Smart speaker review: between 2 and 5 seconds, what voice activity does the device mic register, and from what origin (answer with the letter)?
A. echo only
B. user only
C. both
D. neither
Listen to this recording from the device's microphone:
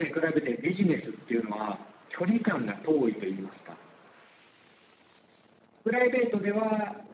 A